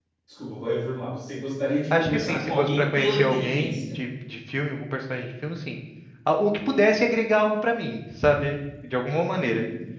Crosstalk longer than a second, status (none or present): present